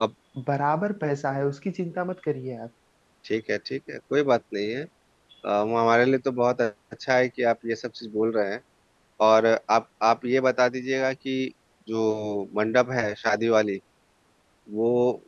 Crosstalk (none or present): none